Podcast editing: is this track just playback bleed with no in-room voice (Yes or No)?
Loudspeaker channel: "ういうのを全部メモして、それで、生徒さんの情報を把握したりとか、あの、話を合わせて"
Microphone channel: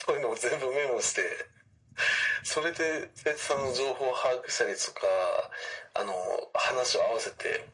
Yes